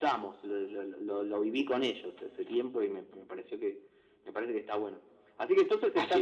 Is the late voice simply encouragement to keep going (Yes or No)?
Yes